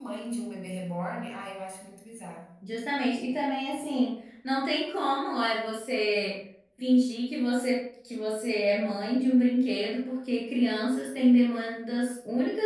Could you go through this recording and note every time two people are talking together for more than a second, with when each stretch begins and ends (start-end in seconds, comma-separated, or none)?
none